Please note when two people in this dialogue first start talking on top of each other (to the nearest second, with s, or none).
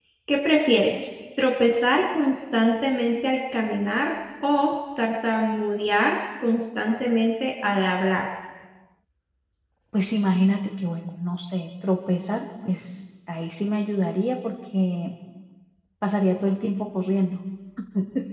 none